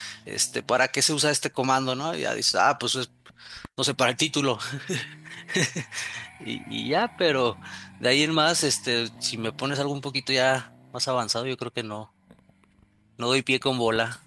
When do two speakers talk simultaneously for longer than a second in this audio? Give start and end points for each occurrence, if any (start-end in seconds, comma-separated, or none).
none